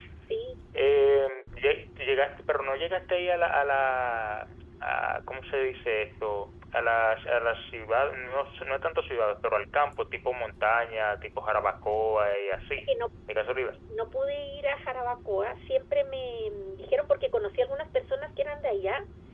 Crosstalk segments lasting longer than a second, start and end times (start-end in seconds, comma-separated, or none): none